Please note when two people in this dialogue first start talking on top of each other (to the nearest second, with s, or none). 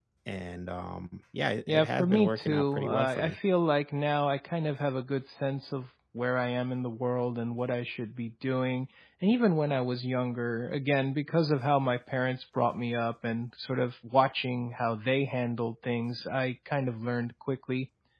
2 s